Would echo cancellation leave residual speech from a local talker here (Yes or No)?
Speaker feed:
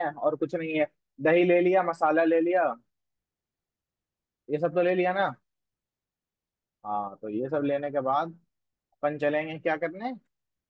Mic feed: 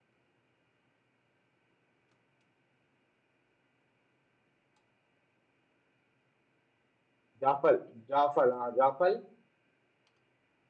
Yes